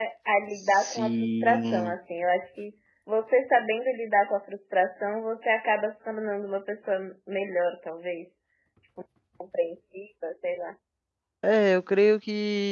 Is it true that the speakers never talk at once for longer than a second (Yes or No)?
No